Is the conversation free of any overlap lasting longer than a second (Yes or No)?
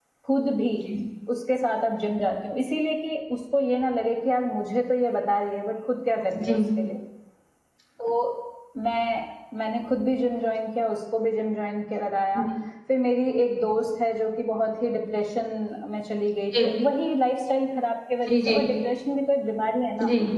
Yes